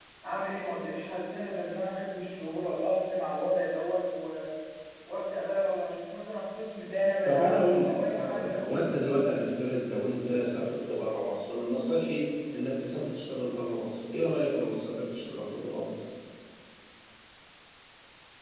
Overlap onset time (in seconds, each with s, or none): 7.2 s